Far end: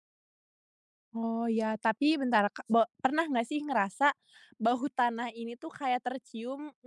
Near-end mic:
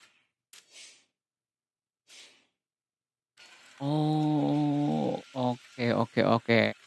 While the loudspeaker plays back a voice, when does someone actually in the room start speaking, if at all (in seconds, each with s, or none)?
3.8 s